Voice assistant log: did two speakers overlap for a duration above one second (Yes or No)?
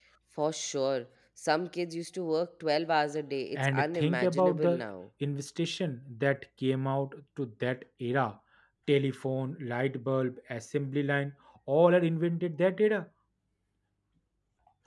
Yes